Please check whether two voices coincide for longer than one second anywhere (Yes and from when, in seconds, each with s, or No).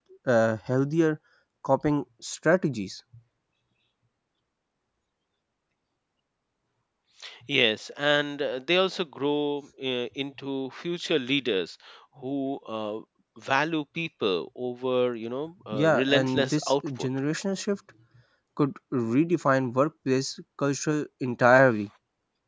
Yes, from 15.7 s